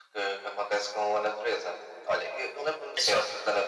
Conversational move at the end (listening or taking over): listening